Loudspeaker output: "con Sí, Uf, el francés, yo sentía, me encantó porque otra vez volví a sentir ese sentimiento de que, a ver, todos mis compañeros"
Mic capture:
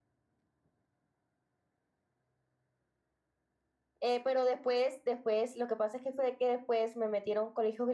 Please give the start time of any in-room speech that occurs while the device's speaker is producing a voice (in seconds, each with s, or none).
4.0 s